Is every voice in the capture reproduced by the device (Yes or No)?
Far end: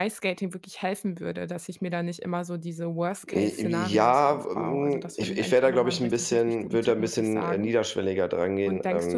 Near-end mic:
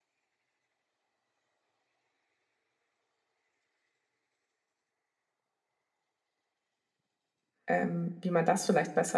No